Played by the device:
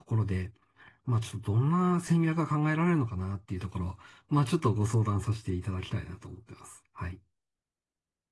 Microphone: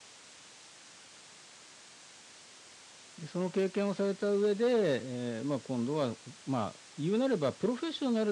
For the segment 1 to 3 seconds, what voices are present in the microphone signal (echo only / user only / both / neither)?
neither